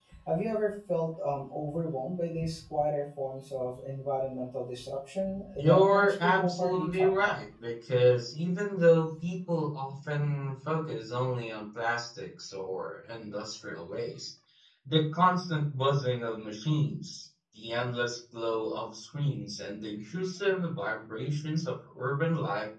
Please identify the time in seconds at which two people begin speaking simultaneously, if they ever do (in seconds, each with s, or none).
5.6 s